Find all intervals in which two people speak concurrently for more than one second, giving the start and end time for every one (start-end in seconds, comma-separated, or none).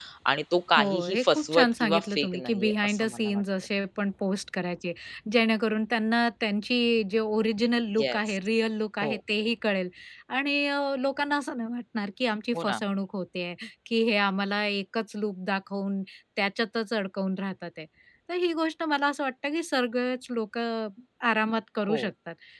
0.8-3.4